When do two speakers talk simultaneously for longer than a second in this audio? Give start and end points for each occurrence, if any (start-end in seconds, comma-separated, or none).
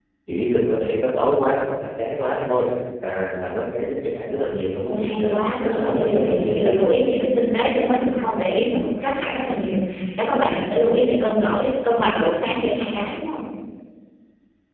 4.9-6.8